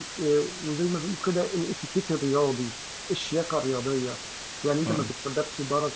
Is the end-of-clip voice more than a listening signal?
No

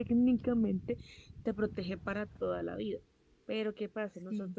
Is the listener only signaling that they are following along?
Yes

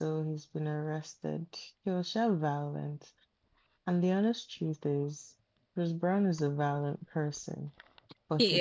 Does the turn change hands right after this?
No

